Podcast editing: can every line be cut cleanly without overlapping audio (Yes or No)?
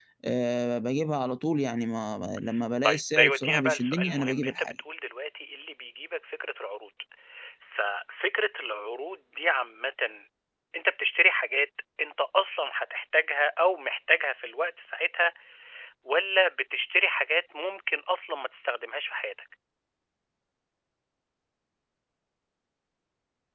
No